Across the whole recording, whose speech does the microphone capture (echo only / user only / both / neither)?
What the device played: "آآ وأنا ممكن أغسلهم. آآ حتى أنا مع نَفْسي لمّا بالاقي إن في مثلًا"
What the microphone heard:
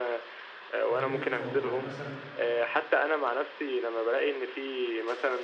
both